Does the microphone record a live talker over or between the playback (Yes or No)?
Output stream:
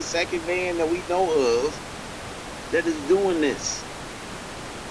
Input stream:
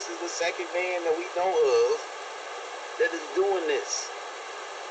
No